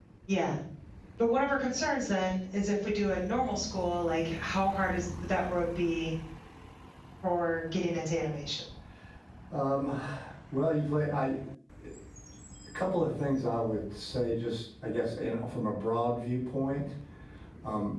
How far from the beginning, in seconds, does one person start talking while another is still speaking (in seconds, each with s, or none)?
none